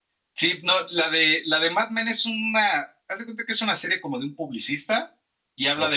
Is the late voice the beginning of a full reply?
No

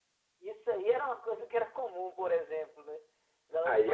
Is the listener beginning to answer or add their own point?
Yes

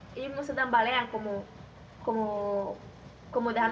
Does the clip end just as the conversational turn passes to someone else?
Yes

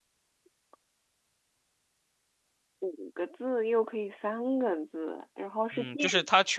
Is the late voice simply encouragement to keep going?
No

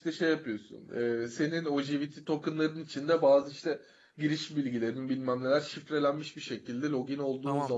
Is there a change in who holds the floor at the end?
Yes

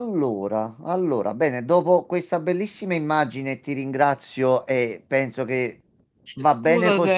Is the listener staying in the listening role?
Yes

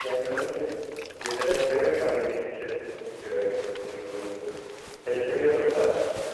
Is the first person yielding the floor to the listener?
No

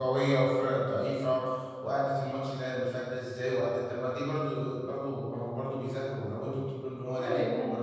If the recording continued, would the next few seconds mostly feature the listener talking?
Yes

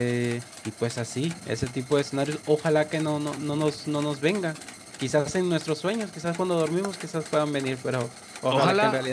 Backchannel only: No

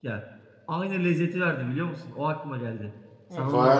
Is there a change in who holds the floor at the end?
Yes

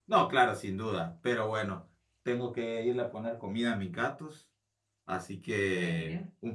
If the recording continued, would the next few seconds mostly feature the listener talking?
No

